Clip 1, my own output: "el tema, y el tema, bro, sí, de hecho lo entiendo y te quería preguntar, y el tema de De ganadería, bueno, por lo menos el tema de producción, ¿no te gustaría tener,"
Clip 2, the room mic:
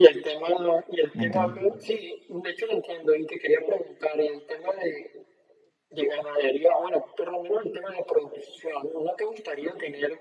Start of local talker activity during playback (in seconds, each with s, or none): 1.1 s